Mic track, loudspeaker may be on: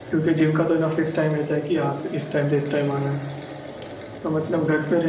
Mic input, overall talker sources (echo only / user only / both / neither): echo only